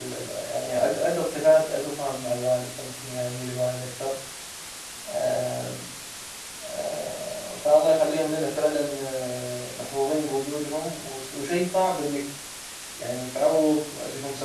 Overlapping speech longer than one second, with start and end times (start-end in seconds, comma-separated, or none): none